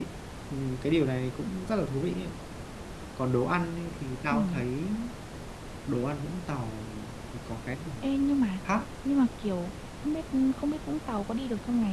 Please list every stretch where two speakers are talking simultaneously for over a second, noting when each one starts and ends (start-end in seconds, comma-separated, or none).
none